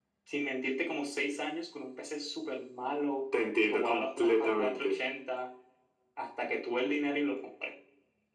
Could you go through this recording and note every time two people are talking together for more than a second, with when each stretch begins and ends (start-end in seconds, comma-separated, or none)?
3.6-5.0